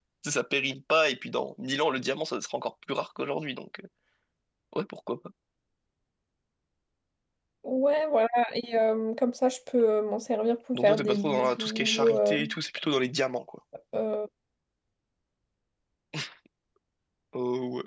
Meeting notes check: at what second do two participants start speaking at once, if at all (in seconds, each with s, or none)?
10.7 s